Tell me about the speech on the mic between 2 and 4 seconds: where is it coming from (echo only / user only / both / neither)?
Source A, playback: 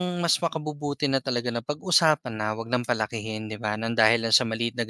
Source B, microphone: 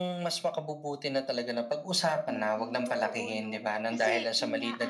both